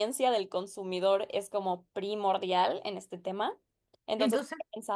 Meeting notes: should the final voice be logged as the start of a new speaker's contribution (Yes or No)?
No